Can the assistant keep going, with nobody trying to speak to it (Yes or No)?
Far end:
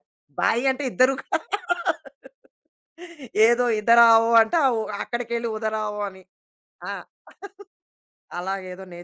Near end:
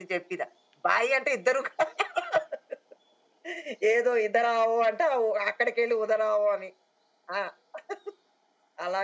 Yes